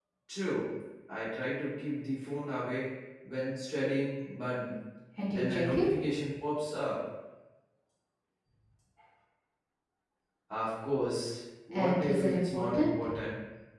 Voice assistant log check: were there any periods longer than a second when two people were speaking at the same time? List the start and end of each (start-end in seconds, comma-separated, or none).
11.7-13.0